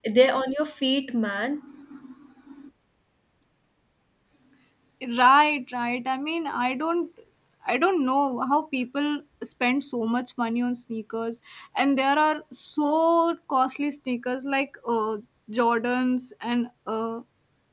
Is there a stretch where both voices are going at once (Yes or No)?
No